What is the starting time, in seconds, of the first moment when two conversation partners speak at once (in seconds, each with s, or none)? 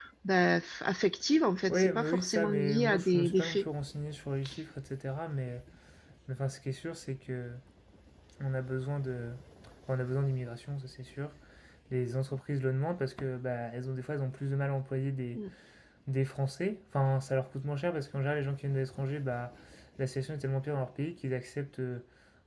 1.7 s